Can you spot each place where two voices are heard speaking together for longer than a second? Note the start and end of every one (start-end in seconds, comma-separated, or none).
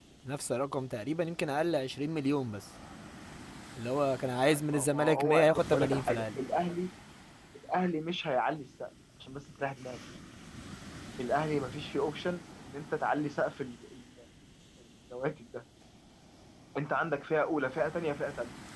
4.7-6.4